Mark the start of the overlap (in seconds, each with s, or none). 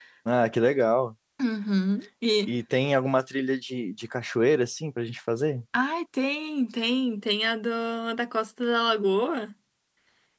none